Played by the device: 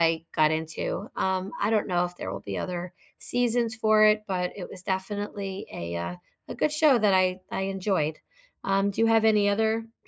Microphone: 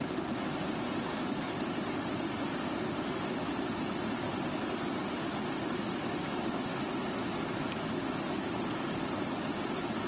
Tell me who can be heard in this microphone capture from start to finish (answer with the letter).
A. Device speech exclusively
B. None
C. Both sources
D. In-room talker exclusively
B